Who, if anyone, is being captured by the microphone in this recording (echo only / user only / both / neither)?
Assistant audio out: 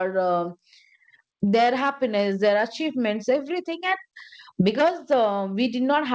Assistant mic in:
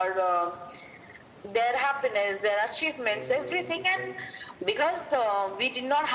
both